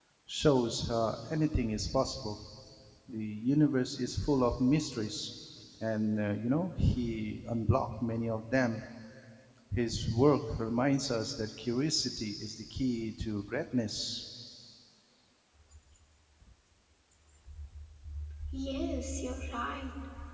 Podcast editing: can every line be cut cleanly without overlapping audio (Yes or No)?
Yes